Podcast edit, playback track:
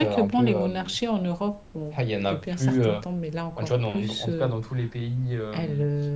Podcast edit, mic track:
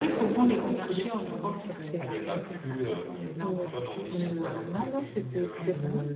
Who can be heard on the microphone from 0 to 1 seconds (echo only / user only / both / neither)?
both